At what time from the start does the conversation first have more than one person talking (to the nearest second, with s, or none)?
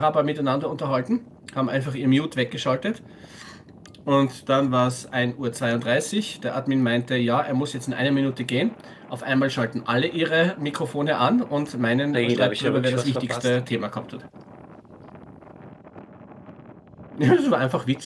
12 s